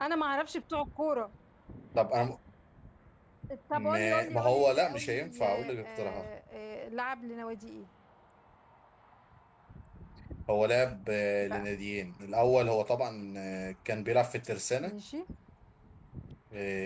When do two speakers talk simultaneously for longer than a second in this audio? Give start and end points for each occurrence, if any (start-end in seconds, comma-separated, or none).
3.7-6.2